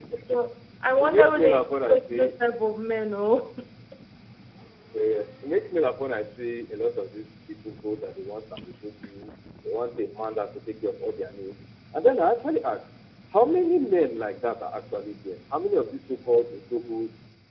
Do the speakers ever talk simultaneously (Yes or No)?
Yes